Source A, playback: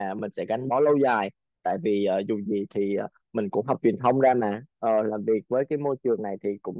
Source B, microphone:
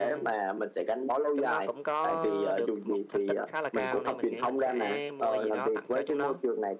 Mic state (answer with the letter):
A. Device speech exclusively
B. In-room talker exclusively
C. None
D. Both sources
D